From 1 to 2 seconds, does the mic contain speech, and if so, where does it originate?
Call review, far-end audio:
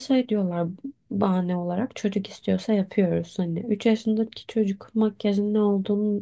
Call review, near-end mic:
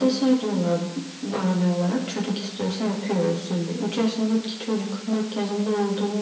echo only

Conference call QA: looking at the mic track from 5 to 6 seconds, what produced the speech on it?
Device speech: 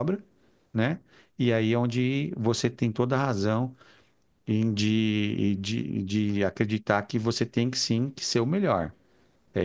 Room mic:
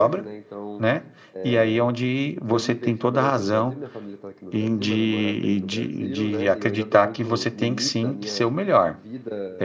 both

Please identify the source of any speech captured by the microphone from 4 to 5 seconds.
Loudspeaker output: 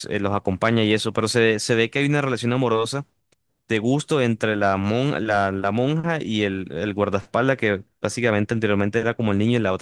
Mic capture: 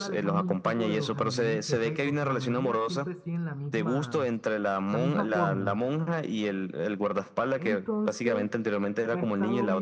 both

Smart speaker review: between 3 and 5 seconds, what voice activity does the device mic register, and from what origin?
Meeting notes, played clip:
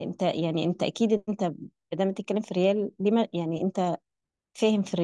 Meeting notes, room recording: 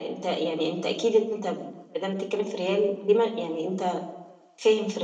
echo only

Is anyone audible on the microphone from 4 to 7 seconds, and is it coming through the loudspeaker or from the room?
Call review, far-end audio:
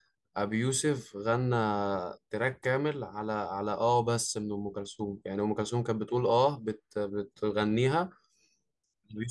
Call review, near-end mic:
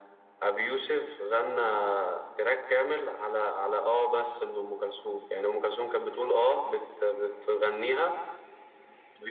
echo only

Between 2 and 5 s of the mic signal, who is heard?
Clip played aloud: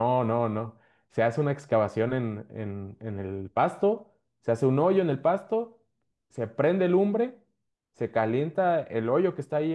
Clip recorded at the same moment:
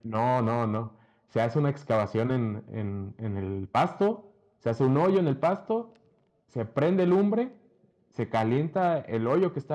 echo only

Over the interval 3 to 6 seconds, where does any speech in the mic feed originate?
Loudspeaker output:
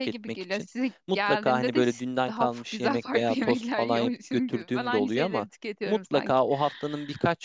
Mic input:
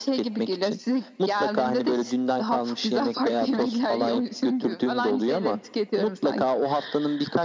echo only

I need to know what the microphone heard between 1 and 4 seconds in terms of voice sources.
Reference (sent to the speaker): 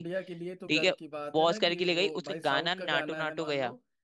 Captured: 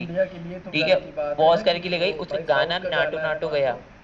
echo only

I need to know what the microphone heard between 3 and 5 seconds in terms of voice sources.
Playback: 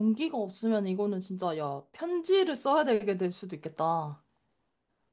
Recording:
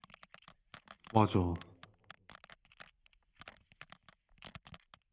neither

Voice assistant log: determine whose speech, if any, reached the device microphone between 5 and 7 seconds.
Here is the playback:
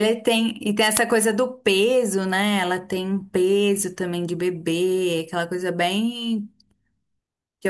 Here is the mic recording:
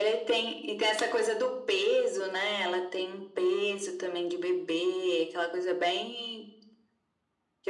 echo only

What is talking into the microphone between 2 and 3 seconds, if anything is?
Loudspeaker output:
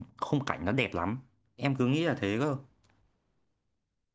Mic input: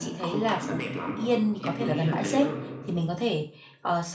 both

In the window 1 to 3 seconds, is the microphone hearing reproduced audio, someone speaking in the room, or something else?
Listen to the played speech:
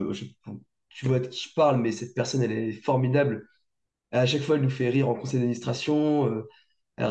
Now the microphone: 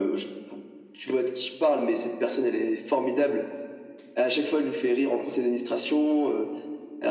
echo only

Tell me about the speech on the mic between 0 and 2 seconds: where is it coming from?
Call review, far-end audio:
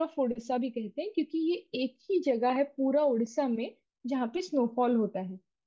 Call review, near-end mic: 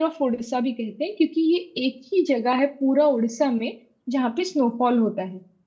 echo only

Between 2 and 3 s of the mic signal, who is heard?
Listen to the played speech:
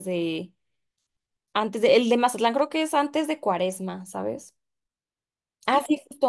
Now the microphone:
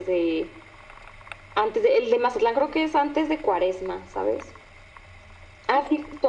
echo only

